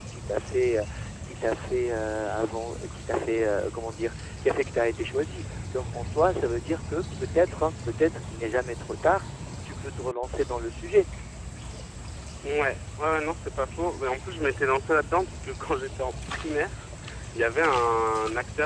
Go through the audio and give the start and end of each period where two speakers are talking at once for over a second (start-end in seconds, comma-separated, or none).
none